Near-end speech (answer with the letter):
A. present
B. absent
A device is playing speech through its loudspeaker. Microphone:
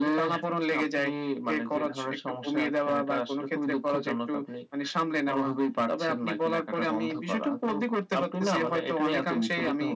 B